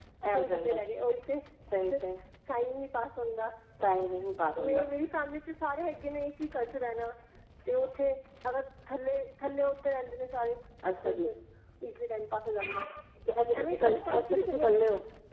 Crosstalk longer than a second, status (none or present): present